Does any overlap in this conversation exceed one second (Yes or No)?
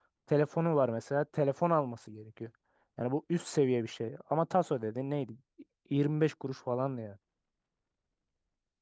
No